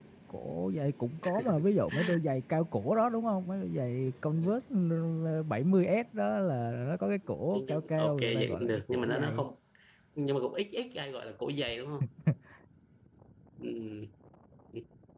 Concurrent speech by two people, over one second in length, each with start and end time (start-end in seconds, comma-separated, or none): 7.5-9.5